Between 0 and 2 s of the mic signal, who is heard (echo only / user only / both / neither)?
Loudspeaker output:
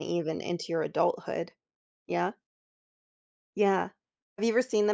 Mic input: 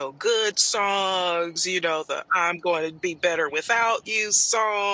user only